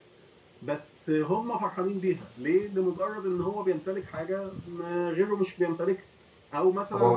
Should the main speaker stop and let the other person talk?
No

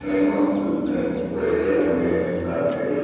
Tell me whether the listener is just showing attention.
No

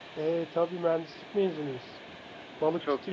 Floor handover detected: Yes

